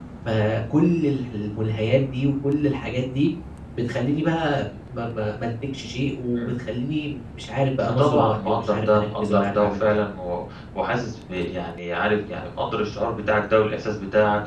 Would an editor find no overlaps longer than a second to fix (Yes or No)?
No